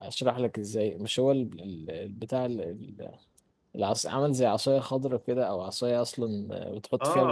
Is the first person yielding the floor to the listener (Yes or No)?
Yes